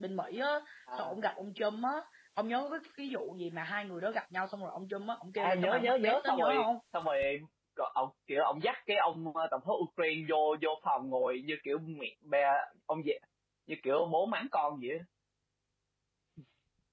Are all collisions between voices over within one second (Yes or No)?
No